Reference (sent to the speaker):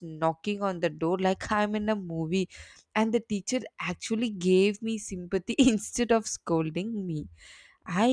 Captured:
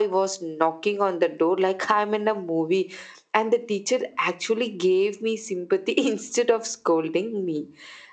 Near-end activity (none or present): none